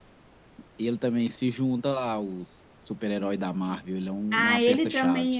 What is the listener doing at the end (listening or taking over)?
taking over